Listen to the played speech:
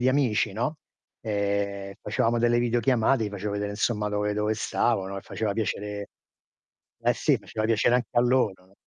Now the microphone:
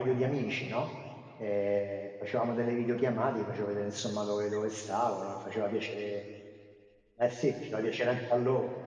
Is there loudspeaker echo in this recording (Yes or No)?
Yes